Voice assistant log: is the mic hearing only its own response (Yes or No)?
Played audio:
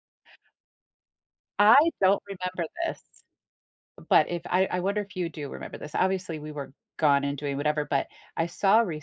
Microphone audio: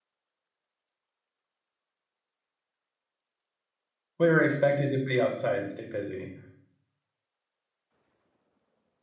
No